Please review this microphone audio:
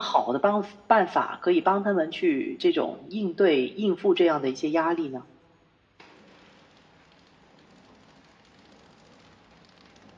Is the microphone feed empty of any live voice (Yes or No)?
Yes